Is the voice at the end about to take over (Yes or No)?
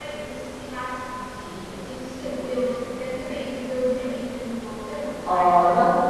Yes